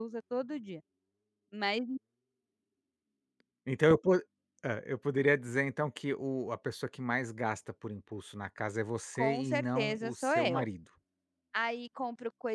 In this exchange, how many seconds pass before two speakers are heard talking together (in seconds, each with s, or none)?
9.2 s